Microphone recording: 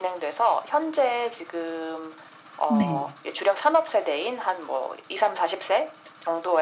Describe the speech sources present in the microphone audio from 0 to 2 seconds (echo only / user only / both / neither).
echo only